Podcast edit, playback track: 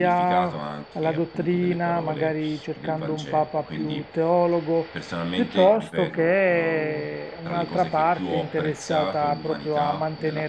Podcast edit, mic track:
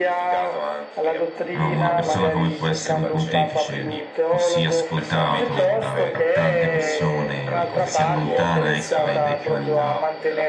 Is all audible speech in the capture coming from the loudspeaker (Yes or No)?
No